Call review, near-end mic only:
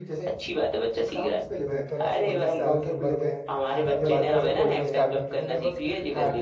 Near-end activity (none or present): present